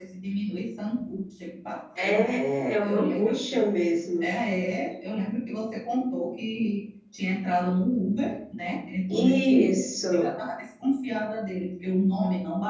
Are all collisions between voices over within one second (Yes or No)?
No